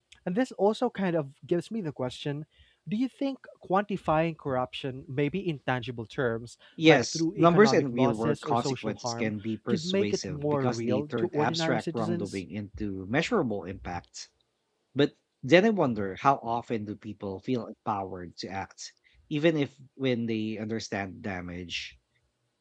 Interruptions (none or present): present